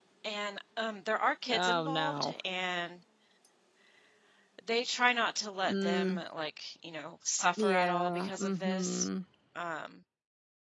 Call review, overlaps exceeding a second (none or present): present